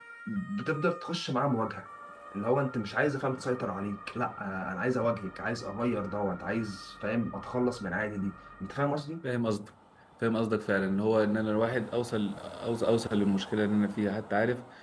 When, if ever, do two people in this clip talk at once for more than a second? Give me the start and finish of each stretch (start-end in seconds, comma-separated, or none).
none